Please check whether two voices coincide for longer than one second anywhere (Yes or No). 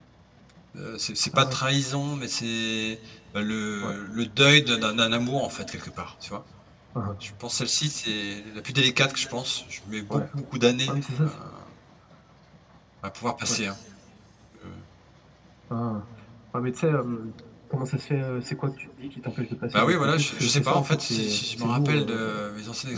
Yes